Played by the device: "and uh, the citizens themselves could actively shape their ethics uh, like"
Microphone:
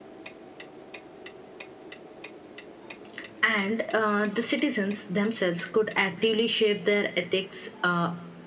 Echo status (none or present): present